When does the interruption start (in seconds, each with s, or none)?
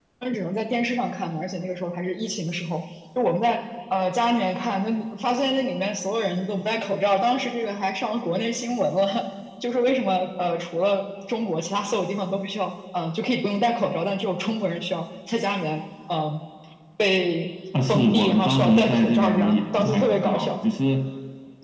17.7 s